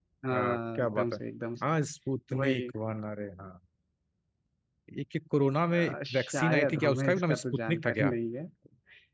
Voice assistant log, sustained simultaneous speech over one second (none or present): present